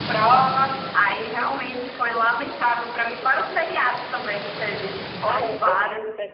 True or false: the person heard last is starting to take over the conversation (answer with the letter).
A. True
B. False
A